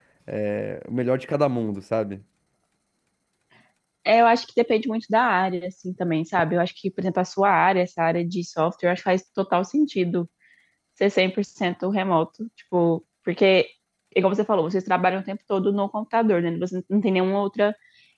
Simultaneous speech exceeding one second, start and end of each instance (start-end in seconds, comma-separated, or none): none